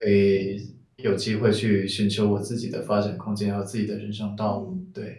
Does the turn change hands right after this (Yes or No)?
Yes